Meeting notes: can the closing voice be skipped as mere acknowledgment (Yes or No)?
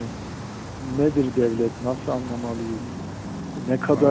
Yes